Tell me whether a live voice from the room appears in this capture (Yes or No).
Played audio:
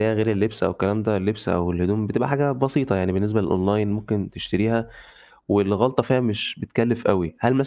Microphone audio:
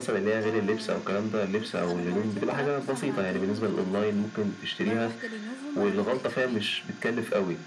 Yes